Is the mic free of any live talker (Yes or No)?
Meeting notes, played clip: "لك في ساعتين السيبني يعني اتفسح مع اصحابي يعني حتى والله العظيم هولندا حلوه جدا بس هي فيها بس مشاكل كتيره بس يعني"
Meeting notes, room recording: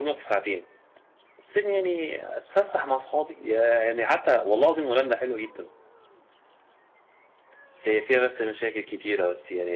Yes